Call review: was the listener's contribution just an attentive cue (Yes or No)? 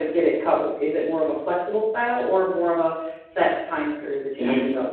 No